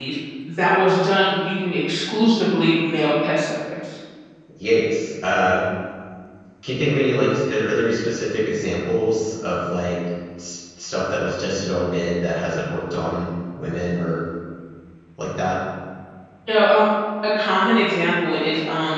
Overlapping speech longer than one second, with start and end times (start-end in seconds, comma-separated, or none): none